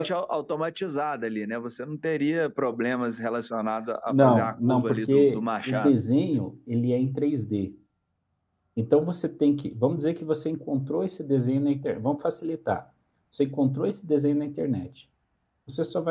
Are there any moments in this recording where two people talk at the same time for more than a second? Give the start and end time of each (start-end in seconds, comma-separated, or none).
4.1-5.9